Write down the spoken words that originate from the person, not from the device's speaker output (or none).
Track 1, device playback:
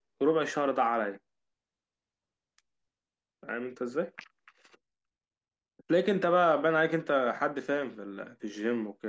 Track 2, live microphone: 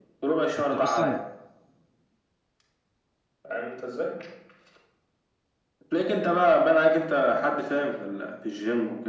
انت اصلا